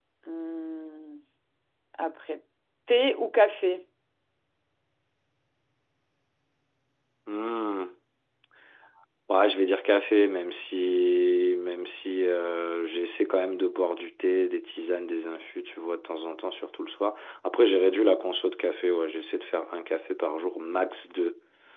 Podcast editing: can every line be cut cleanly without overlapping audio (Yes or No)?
Yes